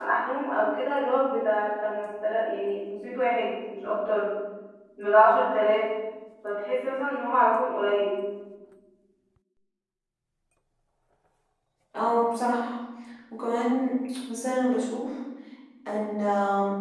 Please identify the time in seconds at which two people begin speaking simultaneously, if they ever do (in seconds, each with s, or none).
none